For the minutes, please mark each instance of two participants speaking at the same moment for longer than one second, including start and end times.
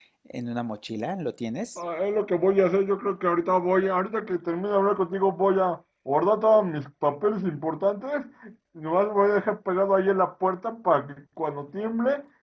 none

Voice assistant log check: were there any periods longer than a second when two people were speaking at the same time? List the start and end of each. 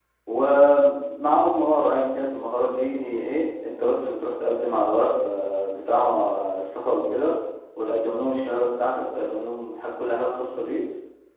none

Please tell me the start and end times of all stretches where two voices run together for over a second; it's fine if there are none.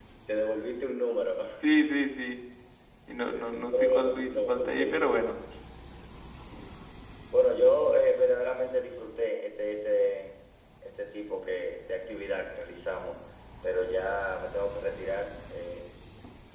3.8-5.3

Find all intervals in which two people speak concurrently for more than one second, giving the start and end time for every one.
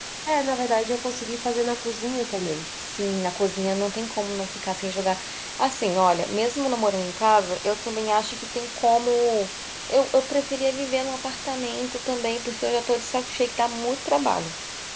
none

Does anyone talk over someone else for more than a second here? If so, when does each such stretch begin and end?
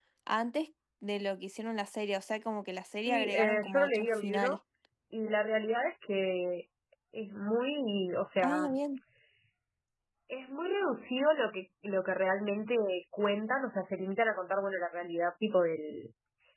3.0-4.6

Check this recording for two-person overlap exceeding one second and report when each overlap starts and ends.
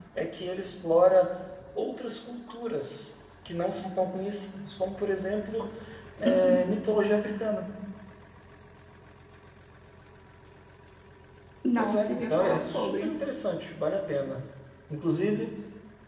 11.8-13.1

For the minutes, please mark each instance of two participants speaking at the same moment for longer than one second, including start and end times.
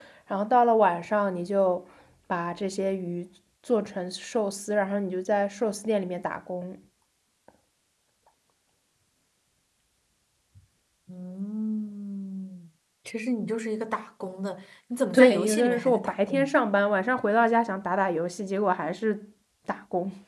15.1-16.5

